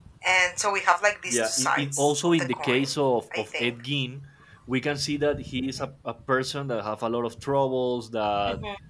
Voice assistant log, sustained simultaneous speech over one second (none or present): present